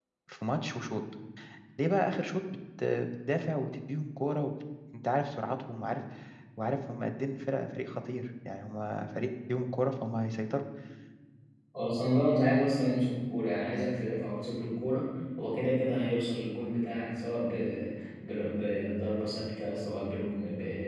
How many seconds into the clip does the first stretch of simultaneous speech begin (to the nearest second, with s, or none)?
none